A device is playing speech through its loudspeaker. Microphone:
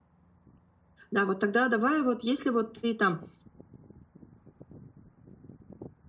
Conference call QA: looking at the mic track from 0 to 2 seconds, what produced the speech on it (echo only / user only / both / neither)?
user only